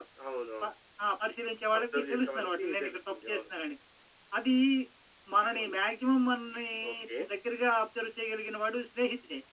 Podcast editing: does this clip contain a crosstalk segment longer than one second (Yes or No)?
Yes